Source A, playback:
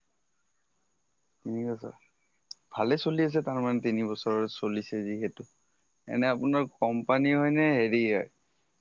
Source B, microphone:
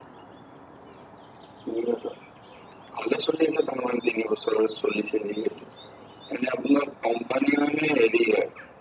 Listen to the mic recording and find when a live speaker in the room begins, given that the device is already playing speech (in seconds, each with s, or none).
none